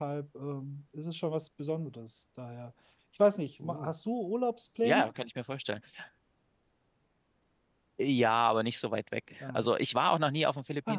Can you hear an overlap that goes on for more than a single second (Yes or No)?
No